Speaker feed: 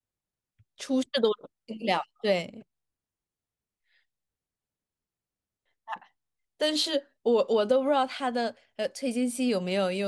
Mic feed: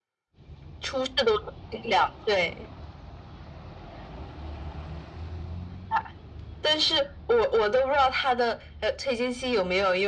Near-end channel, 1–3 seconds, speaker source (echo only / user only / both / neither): echo only